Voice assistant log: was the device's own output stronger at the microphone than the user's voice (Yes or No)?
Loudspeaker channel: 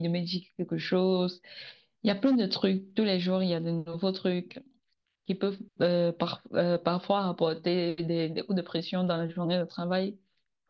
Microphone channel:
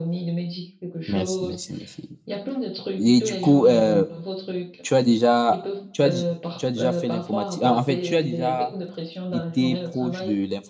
No